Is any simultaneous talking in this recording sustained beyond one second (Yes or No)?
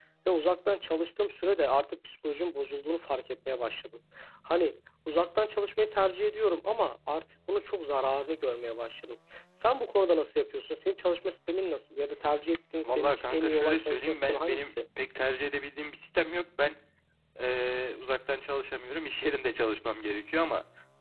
Yes